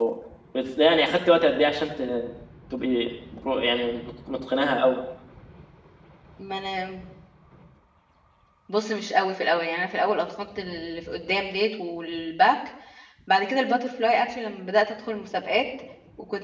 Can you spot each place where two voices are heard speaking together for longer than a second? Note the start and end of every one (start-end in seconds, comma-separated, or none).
none